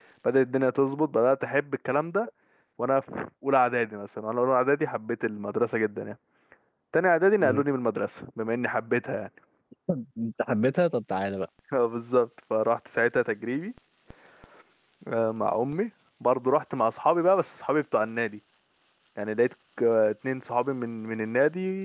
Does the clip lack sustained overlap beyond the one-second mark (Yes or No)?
Yes